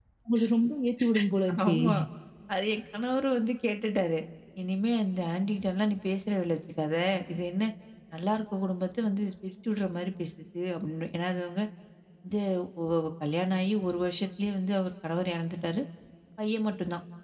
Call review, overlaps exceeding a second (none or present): none